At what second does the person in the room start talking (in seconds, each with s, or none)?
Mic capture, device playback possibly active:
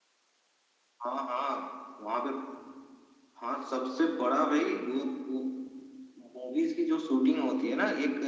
none